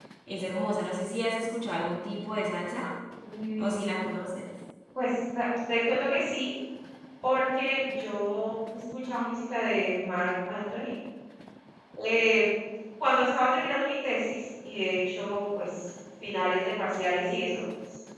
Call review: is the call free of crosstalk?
Yes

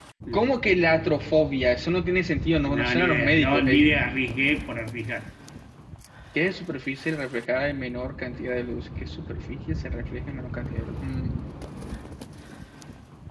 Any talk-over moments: Yes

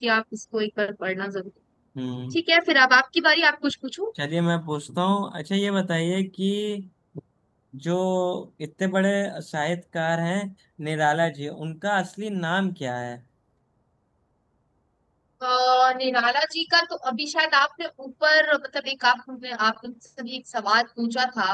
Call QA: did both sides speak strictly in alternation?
Yes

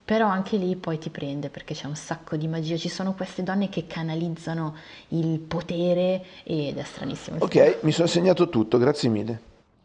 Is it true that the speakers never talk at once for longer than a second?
Yes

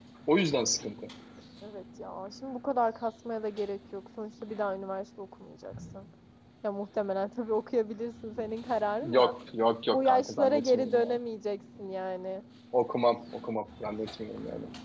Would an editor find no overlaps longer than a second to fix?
No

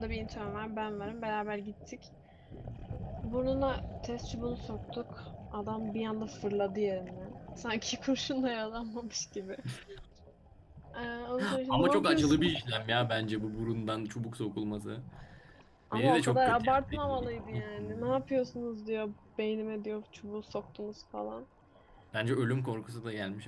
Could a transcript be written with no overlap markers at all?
No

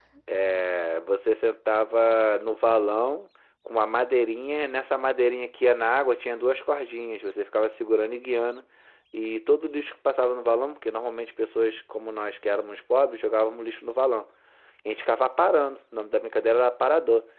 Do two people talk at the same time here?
No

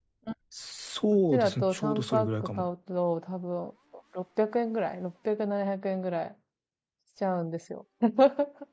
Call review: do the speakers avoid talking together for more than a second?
No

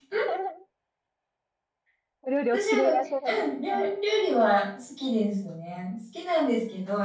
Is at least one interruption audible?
Yes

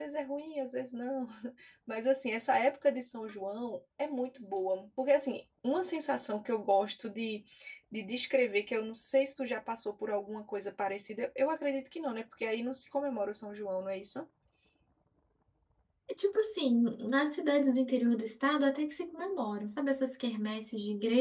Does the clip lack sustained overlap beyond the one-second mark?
Yes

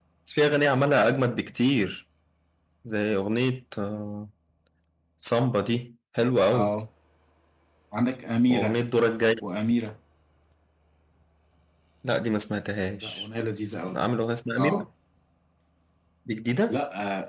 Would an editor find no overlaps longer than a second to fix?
Yes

